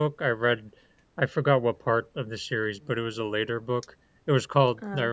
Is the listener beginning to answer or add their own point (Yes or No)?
No